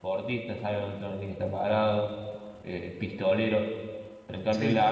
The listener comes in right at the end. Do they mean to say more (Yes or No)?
No